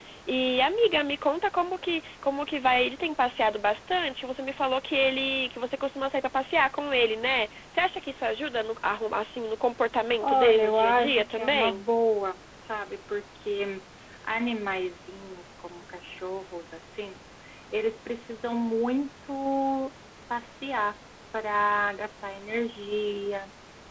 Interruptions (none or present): present